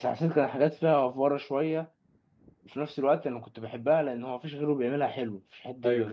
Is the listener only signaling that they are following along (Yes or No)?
Yes